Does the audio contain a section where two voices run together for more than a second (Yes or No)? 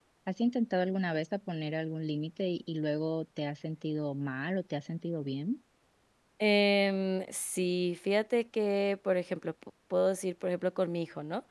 No